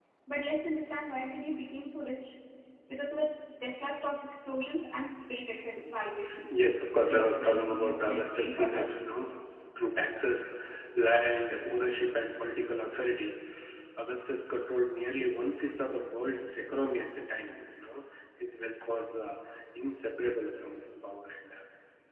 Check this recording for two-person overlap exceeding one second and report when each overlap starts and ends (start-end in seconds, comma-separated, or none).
7.0-8.9